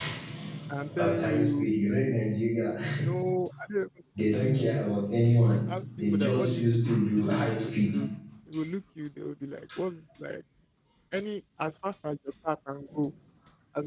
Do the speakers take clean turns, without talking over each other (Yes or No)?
No